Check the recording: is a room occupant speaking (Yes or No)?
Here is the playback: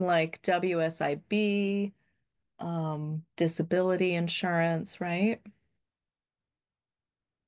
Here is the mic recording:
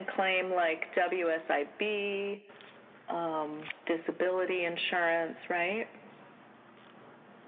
No